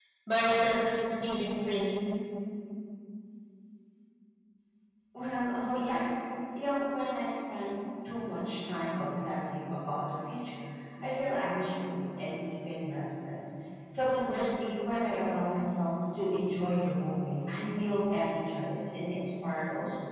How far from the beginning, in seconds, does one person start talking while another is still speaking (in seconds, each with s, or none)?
none